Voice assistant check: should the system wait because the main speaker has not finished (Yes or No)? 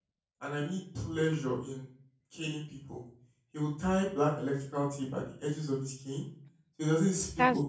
Yes